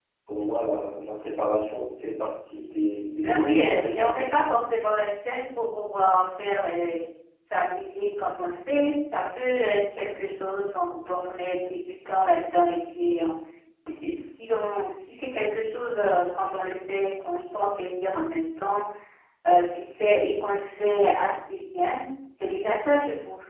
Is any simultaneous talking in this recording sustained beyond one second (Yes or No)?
Yes